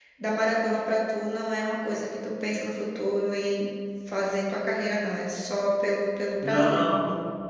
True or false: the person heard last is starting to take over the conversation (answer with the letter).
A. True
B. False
A